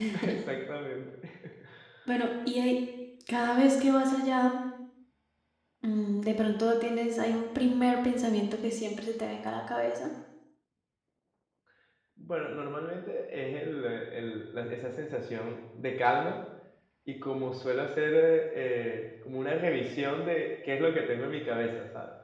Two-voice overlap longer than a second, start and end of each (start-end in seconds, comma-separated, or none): none